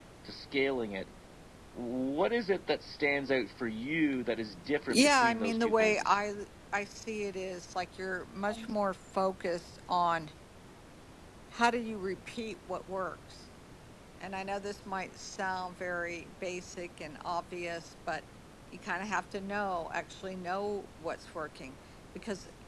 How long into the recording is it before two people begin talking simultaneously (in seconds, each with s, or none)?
4.9 s